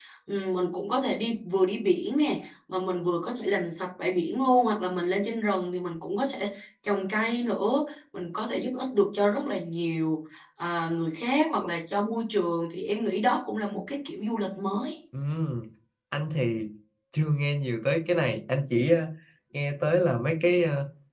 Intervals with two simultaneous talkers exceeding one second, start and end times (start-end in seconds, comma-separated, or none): none